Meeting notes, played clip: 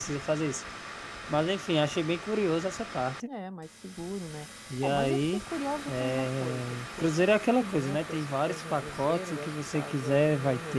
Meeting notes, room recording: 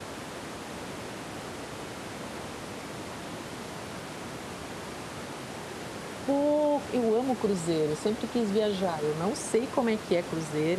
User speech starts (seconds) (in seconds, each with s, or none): 6.2 s